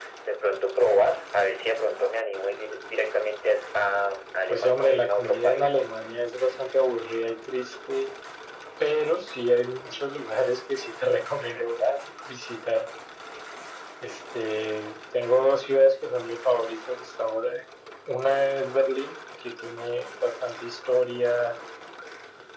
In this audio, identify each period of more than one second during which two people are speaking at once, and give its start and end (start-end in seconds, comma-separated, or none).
4.5-5.7